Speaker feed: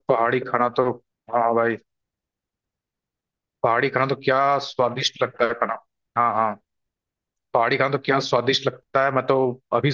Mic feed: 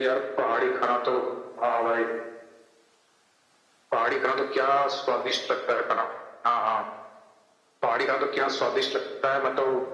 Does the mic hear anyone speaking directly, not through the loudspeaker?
No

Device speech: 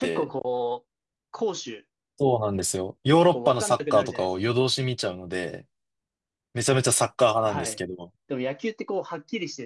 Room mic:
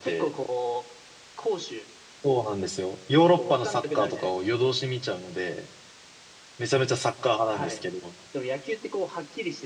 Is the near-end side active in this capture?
No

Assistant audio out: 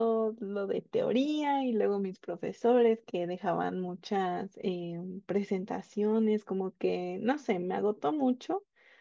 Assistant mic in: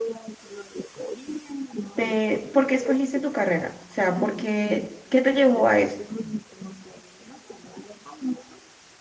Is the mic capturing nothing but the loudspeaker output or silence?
No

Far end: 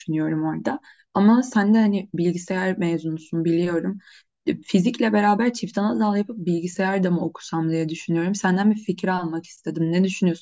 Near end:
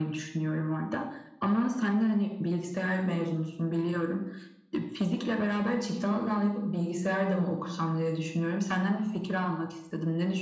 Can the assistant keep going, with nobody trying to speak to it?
Yes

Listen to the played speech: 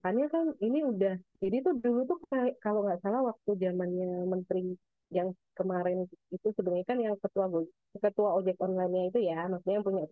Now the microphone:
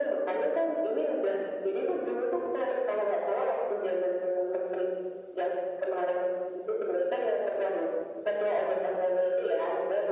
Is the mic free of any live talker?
Yes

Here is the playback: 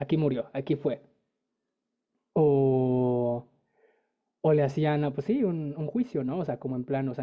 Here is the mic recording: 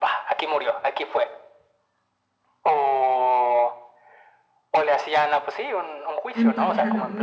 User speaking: Yes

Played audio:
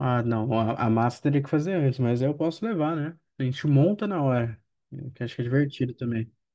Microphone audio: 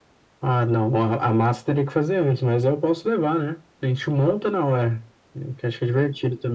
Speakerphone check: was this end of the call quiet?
Yes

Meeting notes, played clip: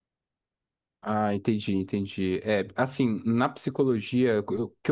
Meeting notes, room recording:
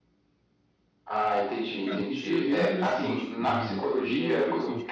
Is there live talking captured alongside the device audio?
Yes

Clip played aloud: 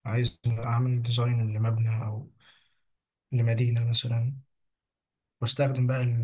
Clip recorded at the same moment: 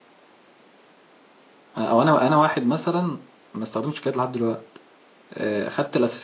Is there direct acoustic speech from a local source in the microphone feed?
Yes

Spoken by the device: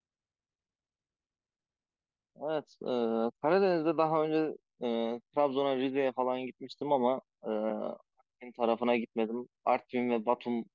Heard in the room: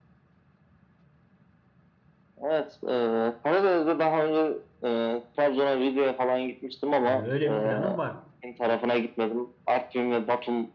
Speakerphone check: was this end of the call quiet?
No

